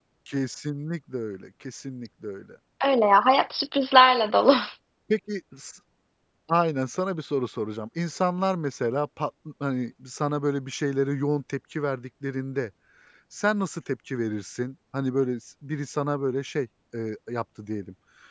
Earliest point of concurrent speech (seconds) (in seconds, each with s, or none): none